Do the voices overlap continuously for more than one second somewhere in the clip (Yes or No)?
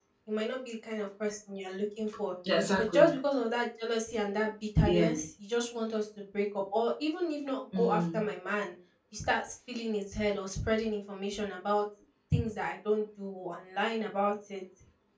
No